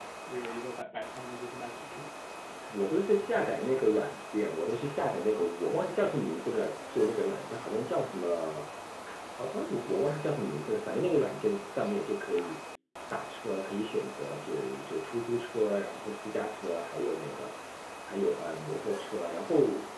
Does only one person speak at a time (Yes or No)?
Yes